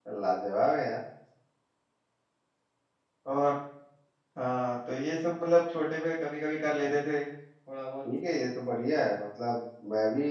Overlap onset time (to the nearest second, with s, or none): none